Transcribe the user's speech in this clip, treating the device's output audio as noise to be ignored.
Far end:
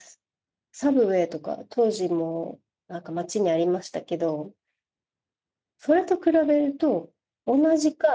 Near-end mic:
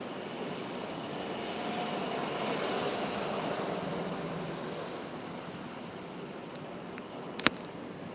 none

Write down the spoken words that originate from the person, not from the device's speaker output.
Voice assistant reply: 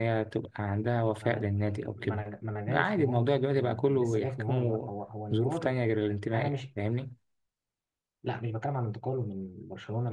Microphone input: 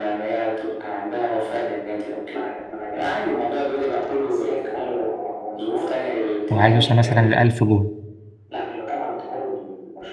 هو عايز يوصل مثلا لألف جول

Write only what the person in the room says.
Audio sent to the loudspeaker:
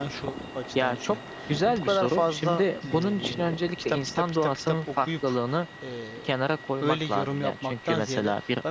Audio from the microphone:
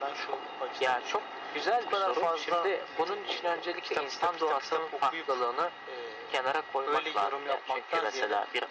none

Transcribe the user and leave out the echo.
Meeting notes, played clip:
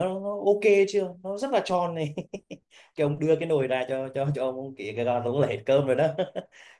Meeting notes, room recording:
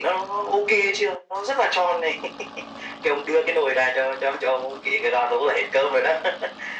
none

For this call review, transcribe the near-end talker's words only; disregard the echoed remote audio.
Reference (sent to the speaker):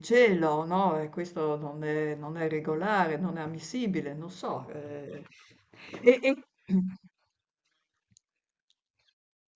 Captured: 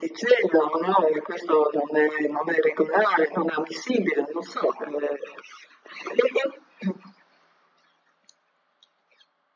none

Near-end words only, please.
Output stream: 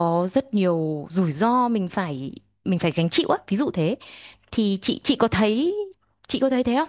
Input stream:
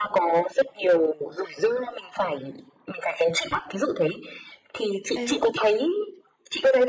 thế

